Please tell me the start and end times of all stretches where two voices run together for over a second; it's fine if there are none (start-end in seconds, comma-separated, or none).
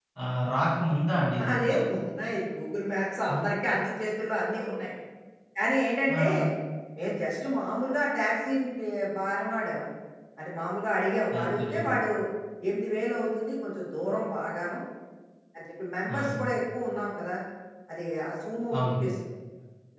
none